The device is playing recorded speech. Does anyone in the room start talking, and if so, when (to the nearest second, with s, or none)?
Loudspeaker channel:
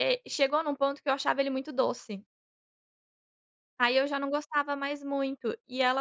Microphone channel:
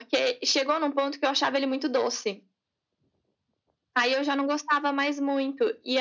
none